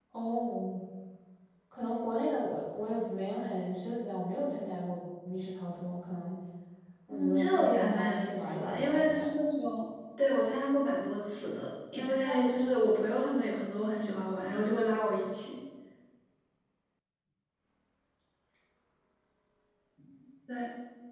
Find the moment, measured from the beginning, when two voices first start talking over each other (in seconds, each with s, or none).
7.1 s